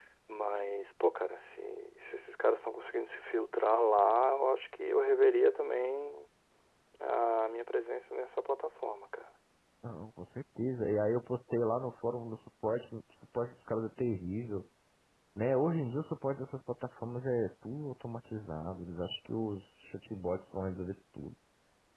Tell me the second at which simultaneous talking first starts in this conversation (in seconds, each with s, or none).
none